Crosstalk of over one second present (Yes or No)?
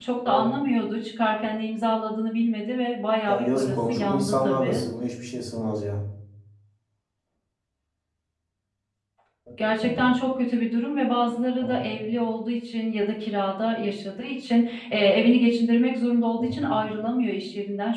Yes